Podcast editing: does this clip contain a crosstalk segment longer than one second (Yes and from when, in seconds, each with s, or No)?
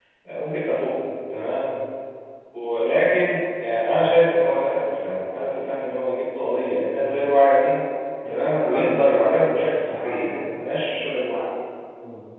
Yes, from 8.2 s